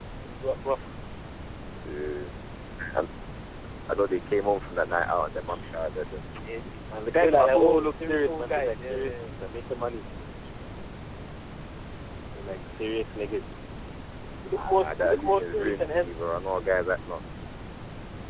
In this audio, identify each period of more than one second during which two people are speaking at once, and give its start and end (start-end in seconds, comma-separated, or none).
7.2-9.1, 14.5-16.1